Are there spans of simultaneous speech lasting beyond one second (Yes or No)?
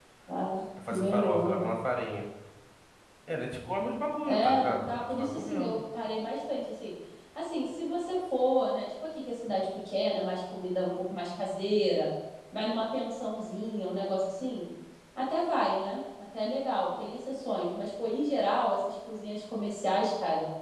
Yes